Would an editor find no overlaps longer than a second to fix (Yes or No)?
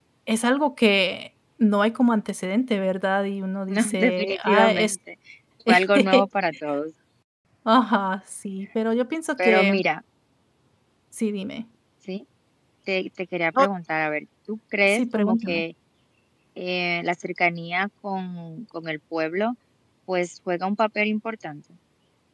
No